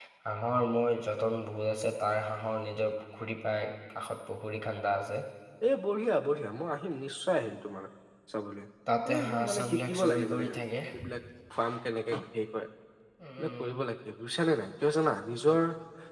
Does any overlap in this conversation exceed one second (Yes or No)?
Yes